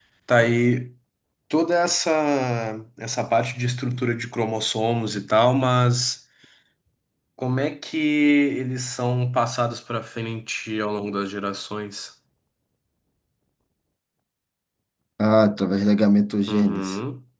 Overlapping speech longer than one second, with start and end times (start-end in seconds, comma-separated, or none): none